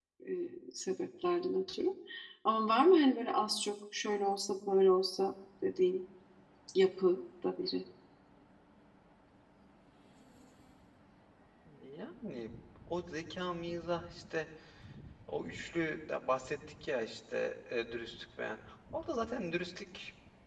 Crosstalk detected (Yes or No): No